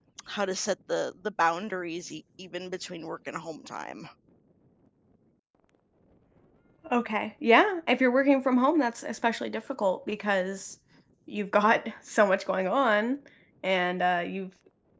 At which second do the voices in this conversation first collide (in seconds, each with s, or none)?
none